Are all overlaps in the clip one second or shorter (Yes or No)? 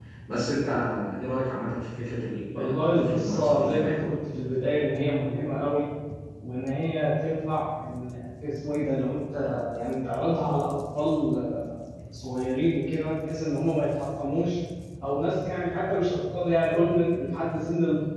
No